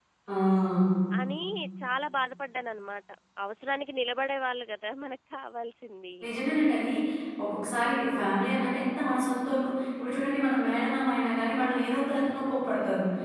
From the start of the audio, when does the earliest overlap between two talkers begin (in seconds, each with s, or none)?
none